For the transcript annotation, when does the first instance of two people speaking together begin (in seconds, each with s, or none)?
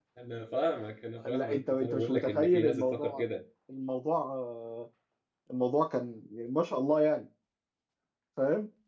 1.3 s